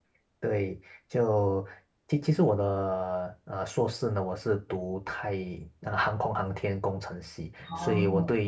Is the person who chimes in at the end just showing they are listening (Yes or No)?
Yes